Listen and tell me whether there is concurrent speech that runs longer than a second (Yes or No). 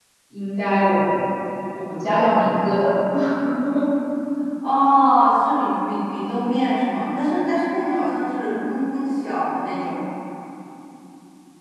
No